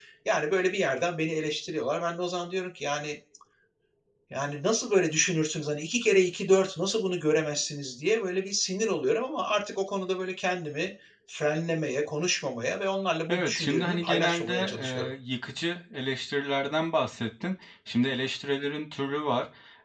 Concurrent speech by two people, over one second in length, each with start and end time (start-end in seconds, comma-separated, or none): 13.3-15.1